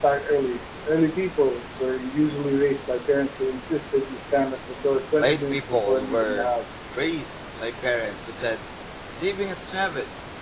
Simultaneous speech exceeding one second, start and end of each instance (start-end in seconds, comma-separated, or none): 5.2-6.5